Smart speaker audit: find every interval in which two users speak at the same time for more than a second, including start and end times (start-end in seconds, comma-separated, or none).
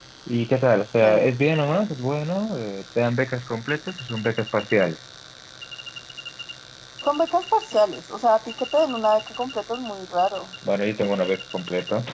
none